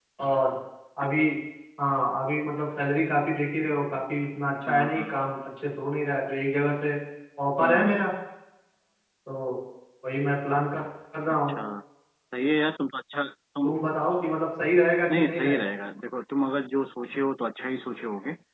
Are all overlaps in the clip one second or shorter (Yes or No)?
Yes